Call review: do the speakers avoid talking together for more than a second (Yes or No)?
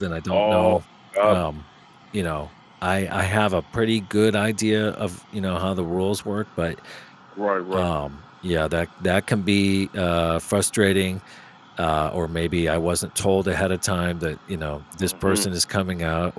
Yes